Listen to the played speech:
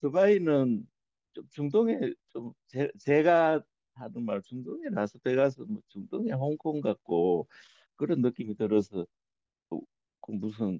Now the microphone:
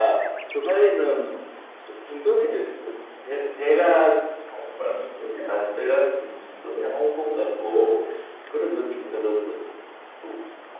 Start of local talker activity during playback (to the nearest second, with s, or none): none